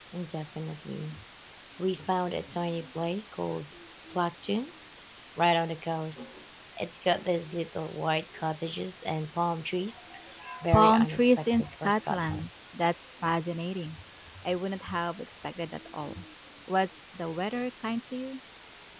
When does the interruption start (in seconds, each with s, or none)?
10.7 s